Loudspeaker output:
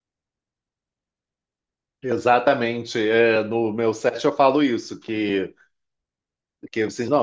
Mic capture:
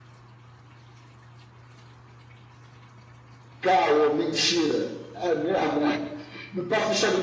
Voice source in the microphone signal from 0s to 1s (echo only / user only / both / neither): neither